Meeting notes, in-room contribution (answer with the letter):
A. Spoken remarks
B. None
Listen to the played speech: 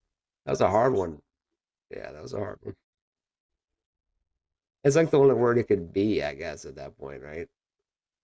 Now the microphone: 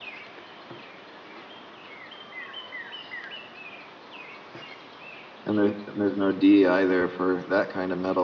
A